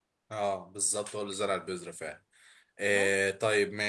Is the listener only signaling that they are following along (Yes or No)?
Yes